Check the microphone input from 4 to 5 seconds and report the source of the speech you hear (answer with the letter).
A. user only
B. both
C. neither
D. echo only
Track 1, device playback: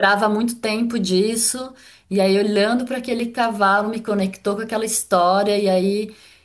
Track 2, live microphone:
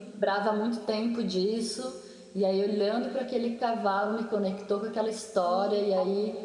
D